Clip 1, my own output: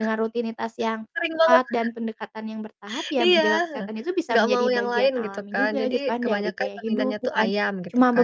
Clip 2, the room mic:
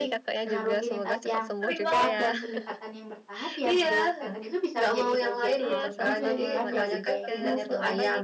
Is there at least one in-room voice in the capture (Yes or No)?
Yes